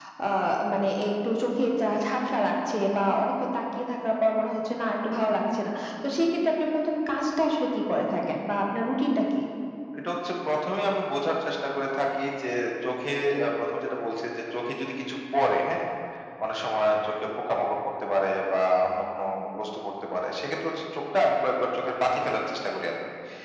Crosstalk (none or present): none